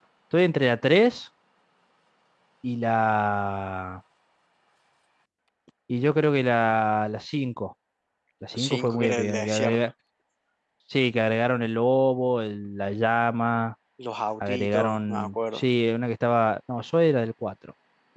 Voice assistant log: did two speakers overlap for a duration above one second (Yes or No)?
Yes